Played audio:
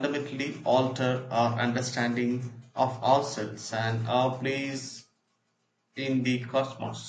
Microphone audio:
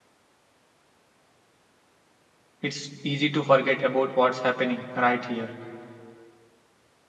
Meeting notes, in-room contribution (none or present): present